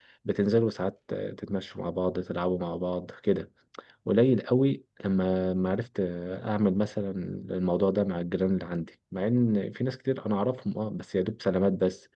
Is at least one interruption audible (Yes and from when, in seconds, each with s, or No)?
No